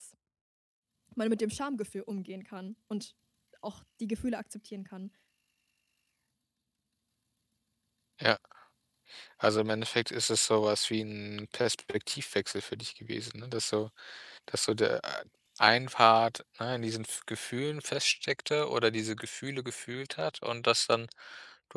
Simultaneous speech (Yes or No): No